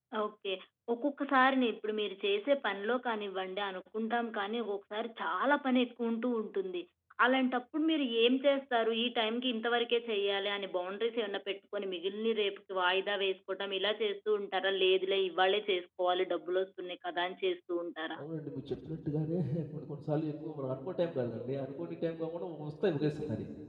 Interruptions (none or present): none